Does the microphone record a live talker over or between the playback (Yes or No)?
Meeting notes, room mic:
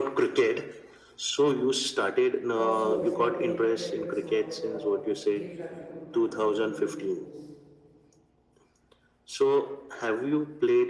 Yes